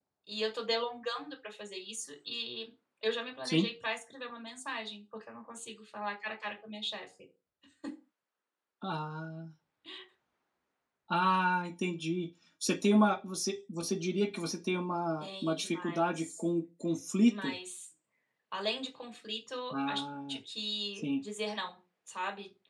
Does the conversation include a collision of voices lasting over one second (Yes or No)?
Yes